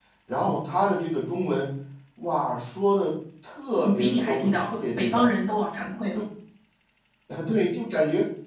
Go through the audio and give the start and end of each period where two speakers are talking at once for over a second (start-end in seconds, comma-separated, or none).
3.8-5.3